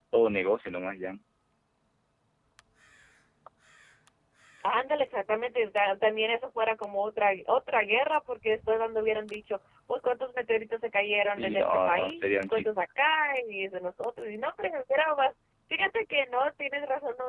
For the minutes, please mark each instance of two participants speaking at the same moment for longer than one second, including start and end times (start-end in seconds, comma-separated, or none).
11.3-12.6